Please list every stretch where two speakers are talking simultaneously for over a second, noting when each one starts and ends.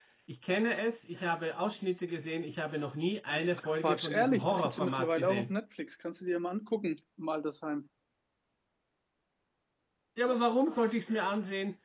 3.5-5.5

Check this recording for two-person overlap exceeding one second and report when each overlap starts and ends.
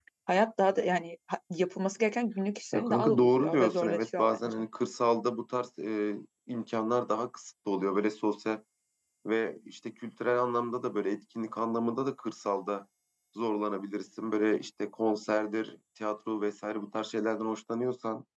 2.7-4.4

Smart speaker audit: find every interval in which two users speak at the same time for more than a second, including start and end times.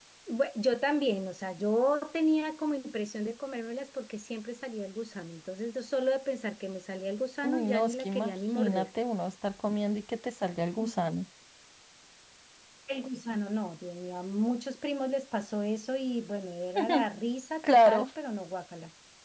7.4-8.9

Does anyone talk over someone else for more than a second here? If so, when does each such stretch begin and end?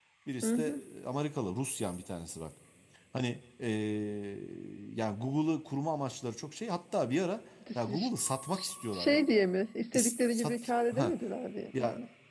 9.9-11.1

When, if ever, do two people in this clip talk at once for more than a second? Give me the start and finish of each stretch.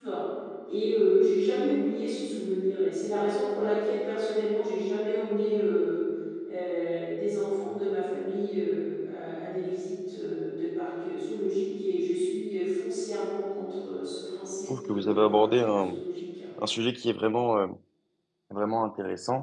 14.7-16.0

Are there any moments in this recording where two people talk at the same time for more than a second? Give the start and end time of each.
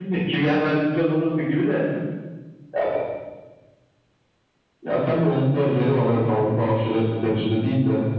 none

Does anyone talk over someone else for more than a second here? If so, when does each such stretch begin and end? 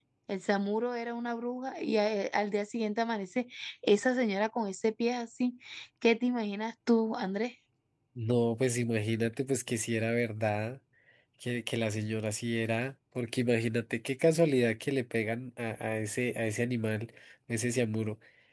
none

